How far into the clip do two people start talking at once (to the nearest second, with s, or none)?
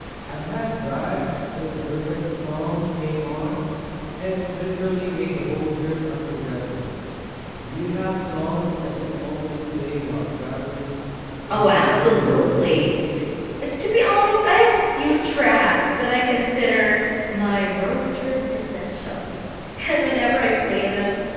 11 s